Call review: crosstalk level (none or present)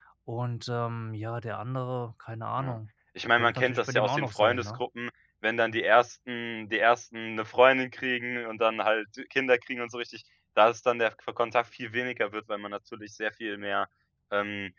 present